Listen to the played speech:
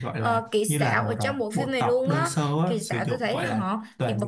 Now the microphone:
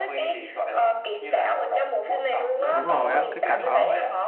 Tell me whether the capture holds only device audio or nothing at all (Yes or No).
No